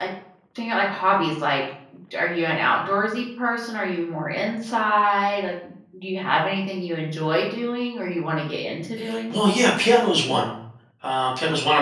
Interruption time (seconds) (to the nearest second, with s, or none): none